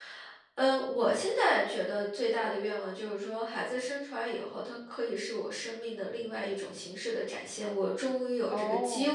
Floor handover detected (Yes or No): No